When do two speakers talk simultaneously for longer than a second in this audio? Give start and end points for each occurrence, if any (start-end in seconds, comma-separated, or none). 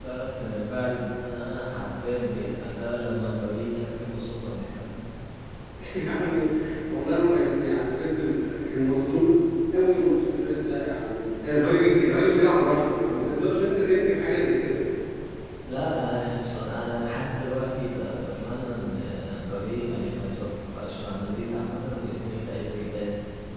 none